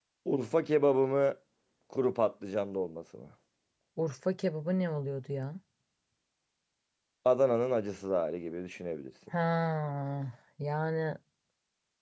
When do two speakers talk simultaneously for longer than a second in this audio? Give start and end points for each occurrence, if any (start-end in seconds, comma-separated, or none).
none